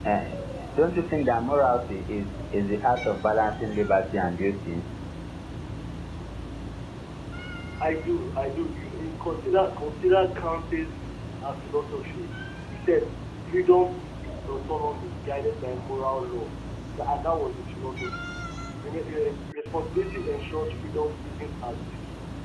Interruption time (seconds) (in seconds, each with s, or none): none